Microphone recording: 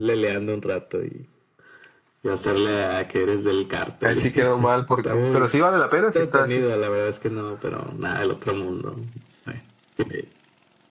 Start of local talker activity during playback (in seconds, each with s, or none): 4.0 s